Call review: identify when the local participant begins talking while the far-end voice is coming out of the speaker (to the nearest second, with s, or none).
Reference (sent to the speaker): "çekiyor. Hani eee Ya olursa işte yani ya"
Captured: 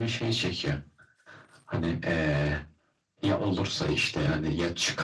none